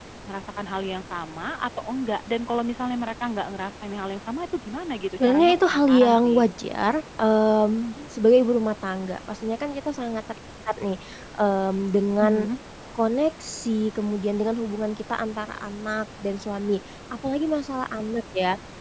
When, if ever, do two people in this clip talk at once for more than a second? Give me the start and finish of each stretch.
5.2-6.4

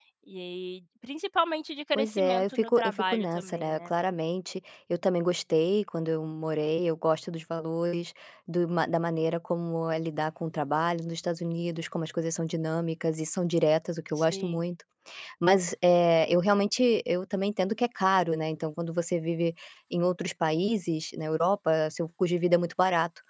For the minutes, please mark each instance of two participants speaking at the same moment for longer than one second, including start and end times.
2.0-3.9

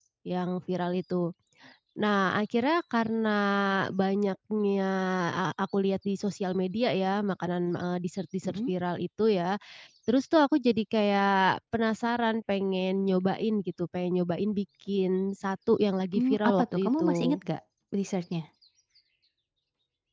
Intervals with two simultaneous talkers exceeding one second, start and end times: 16.2-17.4

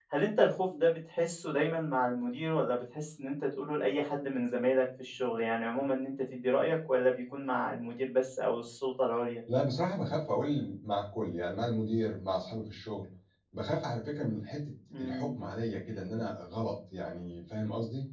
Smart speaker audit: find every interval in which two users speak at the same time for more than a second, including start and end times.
none

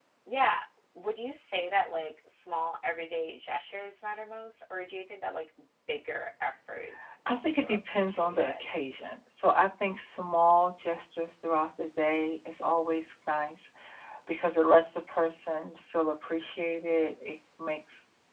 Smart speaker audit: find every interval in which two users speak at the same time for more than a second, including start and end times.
7.3-8.7

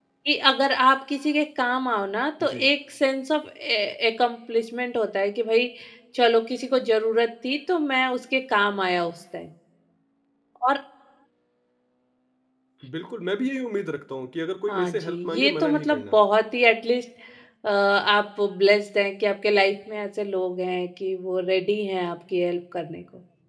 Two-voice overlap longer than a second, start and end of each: 14.7-16.2

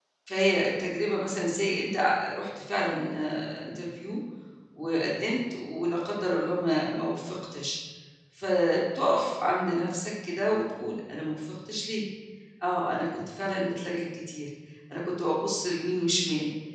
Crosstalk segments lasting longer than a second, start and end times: none

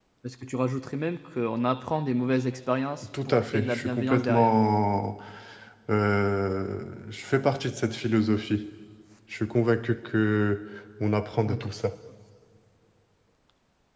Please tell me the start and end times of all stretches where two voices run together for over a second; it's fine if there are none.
3.2-4.6

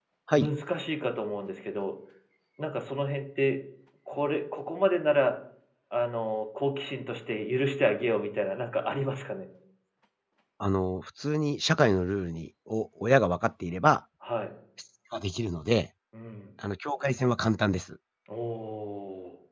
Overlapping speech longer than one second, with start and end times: none

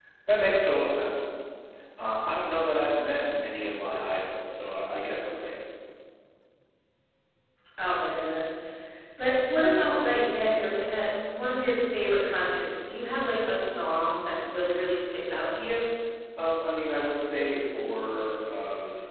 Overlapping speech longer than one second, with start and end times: none

